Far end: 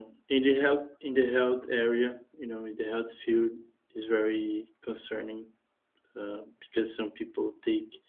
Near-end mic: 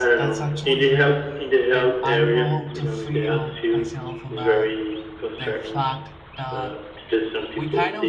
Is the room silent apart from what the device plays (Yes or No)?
No